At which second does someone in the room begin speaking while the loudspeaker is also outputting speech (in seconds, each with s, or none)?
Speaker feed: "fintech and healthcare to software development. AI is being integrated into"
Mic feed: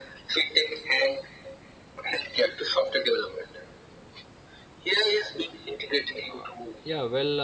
6.3 s